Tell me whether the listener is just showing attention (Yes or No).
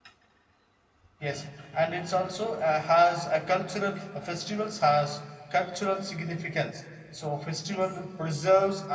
Yes